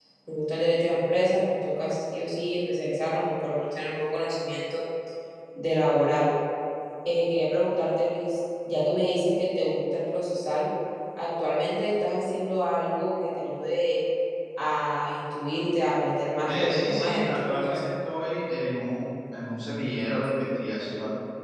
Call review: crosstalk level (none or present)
present